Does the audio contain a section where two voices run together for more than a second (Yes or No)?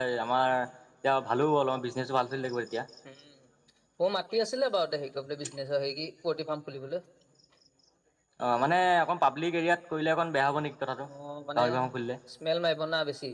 No